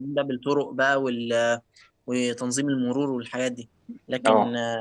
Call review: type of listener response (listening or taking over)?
listening